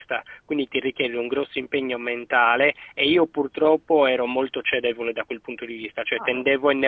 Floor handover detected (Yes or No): No